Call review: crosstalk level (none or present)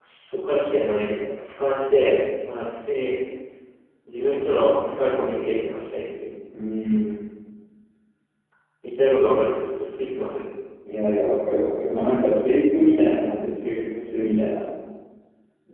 none